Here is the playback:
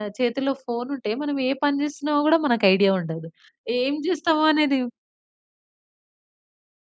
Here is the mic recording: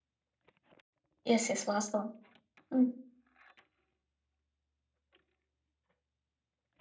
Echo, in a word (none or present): none